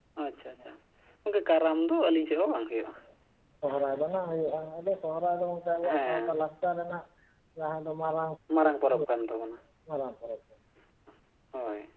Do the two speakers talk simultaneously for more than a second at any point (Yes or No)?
No